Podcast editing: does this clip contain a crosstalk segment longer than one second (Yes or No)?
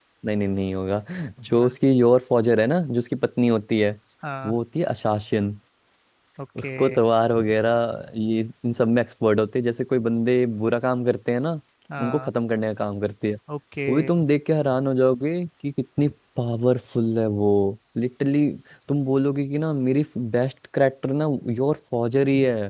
No